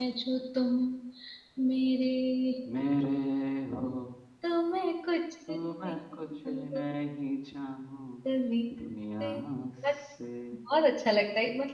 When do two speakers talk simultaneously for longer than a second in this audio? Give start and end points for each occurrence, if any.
5.5-6.8

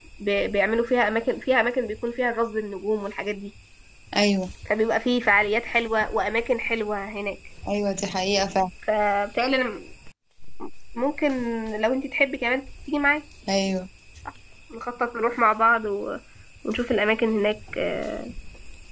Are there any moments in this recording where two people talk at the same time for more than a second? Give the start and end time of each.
none

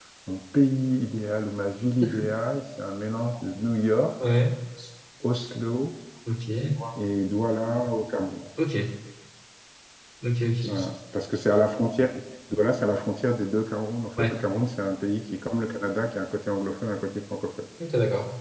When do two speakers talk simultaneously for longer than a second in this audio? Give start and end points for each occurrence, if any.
none

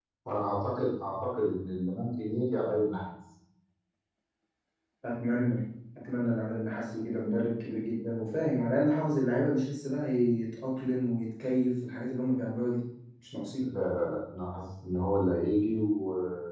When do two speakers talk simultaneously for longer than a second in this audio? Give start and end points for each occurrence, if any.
none

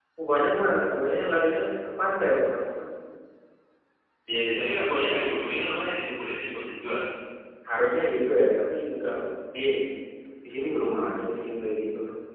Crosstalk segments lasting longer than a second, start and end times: none

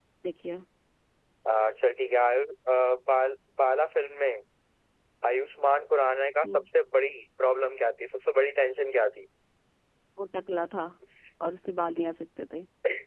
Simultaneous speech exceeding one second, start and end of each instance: none

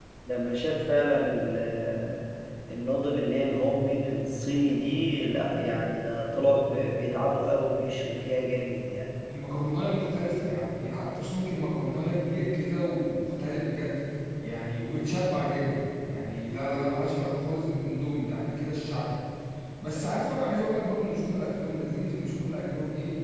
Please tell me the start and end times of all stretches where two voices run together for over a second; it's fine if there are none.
none

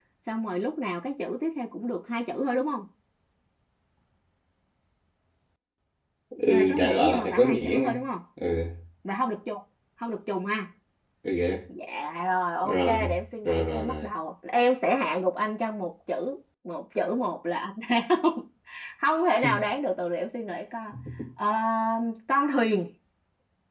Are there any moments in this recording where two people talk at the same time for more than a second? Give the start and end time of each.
6.5-8.0, 12.6-14.1

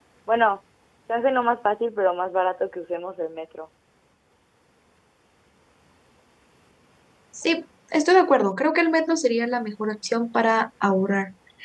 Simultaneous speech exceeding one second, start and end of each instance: none

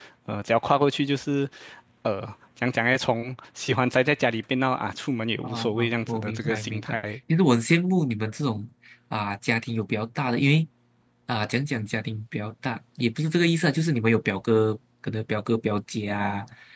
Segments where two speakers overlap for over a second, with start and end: 5.4-7.0

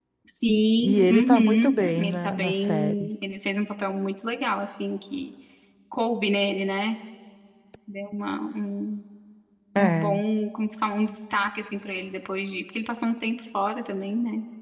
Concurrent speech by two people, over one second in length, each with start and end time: 0.8-3.1

